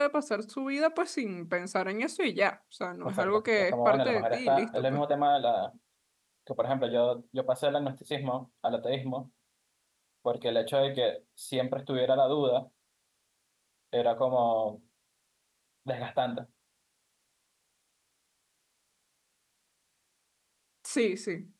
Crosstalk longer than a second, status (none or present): present